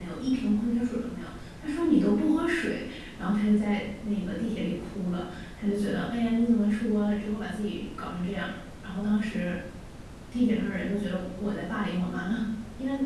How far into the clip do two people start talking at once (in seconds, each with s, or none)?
none